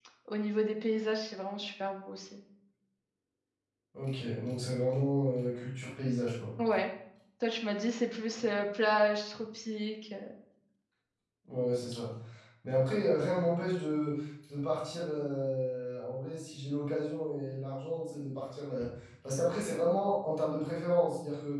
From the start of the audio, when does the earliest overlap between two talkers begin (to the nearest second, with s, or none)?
none